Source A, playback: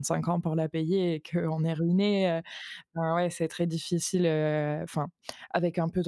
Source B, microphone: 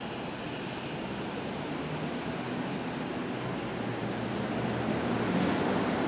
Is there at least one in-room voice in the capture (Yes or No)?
No